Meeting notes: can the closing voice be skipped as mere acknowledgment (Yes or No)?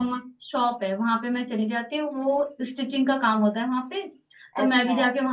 Yes